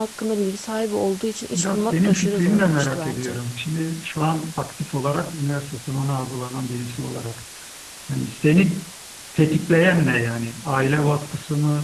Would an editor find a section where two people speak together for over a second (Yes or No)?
Yes